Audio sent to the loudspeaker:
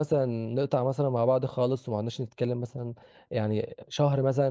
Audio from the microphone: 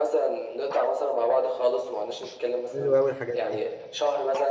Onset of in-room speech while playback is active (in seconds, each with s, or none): 2.7 s